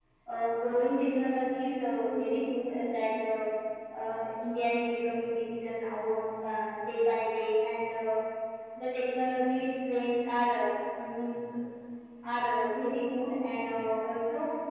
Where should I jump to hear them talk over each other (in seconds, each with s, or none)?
none